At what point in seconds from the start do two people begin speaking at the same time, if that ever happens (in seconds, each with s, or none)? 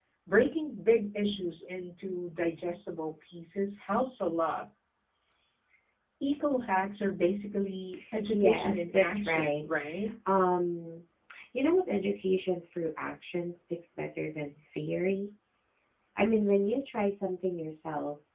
8.3 s